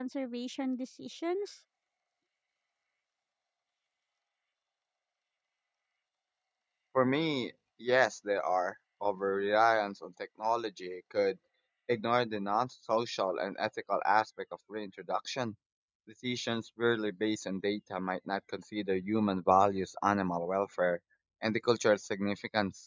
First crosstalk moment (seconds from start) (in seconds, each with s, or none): none